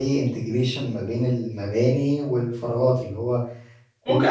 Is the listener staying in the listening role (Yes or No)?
No